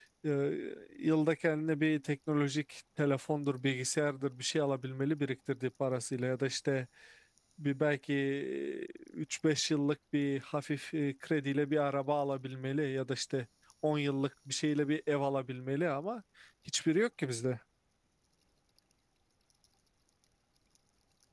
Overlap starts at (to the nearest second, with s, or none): none